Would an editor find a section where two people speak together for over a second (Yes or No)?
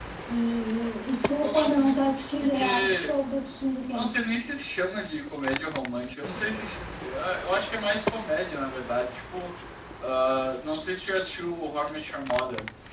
Yes